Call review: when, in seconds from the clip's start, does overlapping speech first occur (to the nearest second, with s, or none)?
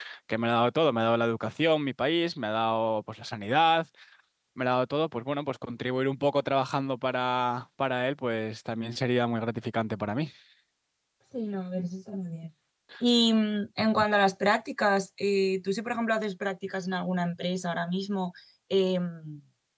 none